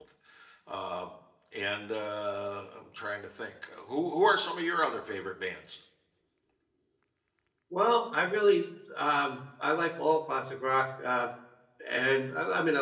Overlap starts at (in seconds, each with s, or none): none